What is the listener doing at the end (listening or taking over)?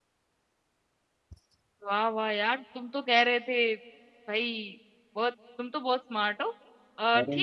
listening